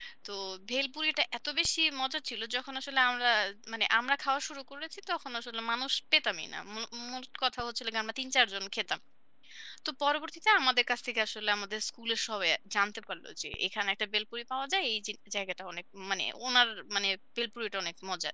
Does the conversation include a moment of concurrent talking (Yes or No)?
No